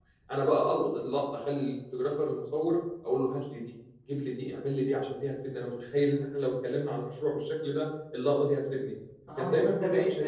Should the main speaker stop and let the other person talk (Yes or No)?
Yes